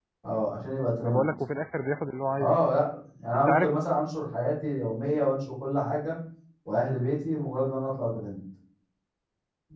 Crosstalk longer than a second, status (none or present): none